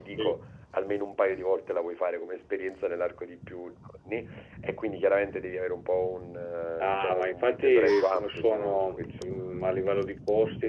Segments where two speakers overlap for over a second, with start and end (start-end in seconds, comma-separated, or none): 6.8-9.3